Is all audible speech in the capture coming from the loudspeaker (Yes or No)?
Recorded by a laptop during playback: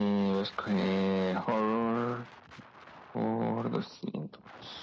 Yes